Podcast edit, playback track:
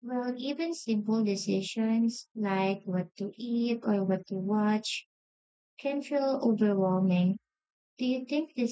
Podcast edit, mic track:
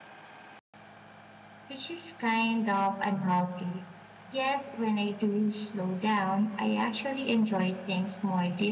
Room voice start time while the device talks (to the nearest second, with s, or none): 2 s